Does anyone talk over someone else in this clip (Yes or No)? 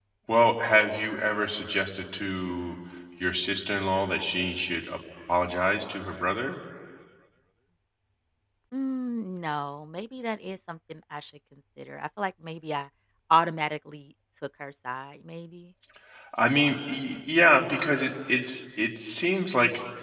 No